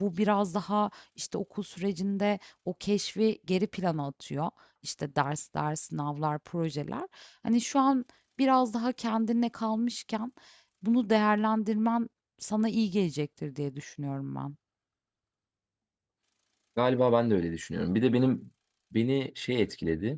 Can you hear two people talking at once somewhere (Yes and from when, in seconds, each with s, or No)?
No